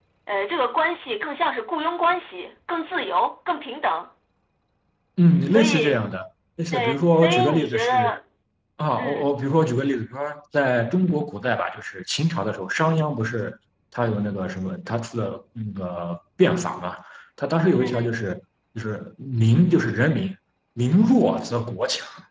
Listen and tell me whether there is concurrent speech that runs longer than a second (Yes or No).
Yes